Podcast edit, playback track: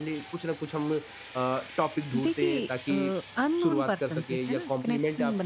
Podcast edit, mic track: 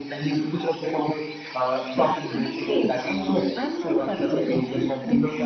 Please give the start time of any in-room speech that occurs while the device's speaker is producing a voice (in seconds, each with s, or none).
none